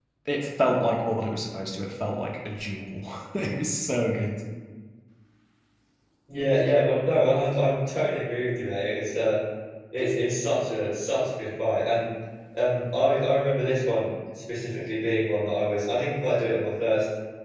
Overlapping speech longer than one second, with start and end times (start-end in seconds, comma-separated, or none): none